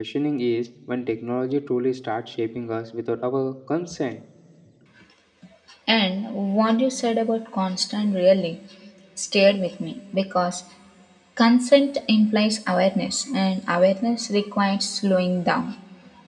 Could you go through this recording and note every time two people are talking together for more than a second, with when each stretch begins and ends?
none

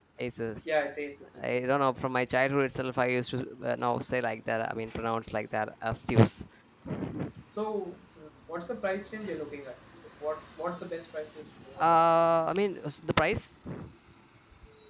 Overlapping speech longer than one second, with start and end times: none

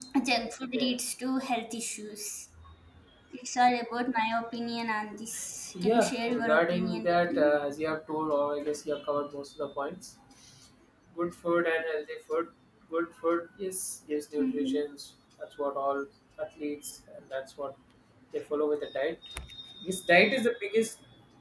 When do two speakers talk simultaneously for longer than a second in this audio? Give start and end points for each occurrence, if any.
5.8-7.6

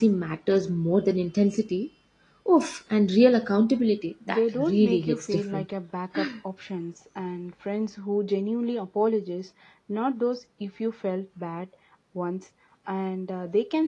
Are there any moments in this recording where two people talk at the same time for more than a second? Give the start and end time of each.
4.3-5.7

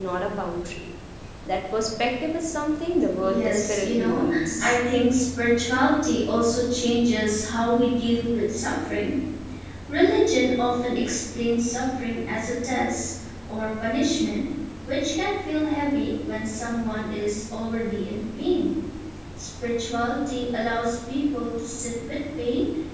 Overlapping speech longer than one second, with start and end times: 3.2-4.8

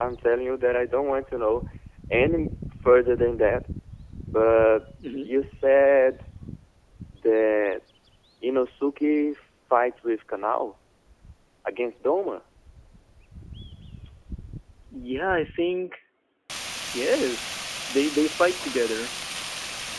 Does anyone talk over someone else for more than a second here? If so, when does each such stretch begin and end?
none

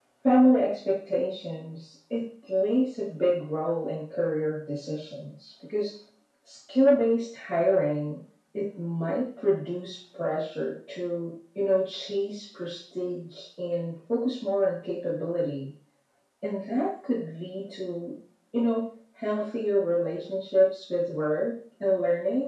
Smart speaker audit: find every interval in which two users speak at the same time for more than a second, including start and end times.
none

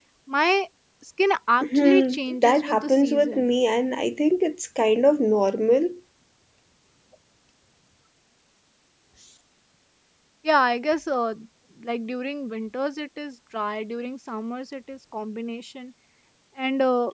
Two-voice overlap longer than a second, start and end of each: 1.6-3.5

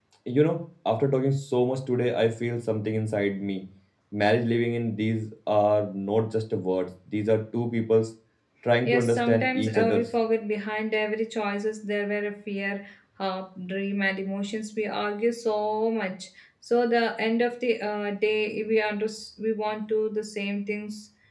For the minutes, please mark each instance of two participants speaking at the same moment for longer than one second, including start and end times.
8.8-10.1

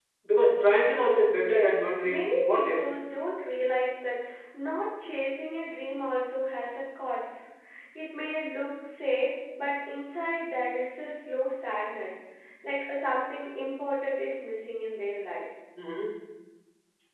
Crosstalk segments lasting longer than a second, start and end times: 1.4-2.8

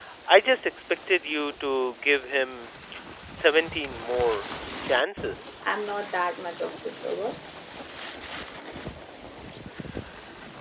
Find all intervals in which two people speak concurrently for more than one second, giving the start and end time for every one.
none

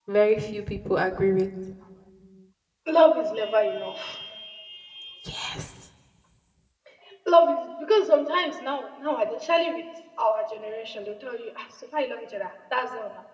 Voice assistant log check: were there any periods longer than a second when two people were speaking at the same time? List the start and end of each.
none

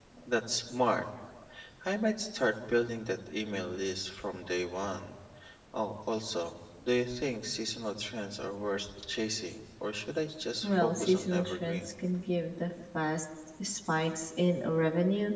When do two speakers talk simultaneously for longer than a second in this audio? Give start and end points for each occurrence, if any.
10.6-11.8

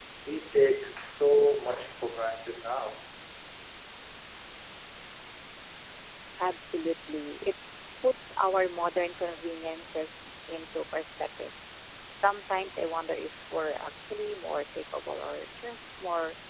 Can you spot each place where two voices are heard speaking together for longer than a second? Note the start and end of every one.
none

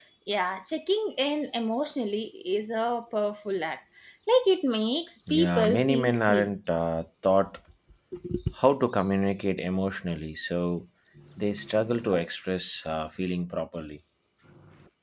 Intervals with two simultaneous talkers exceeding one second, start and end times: 5.3-6.5

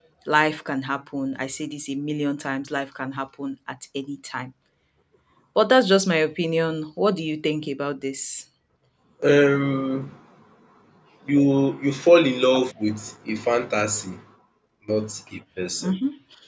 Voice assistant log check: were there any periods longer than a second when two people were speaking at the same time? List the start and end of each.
none

